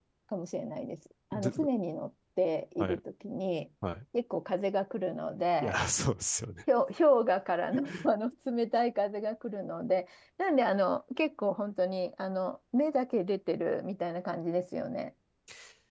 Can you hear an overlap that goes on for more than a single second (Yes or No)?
No